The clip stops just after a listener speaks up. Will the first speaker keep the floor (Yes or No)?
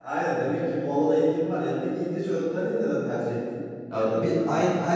No